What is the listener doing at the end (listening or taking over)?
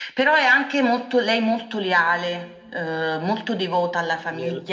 taking over